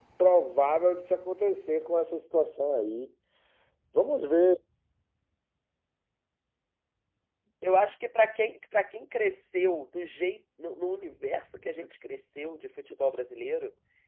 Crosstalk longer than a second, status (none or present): none